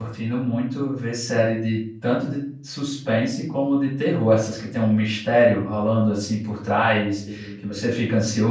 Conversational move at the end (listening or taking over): listening